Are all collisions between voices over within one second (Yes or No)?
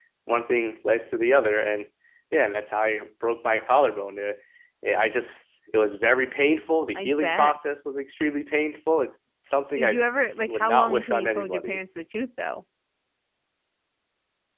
No